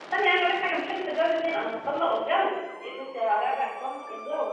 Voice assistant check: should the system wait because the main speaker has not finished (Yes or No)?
No